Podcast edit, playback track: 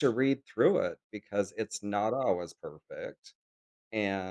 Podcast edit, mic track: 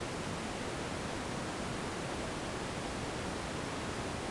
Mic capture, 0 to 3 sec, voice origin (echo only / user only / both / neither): neither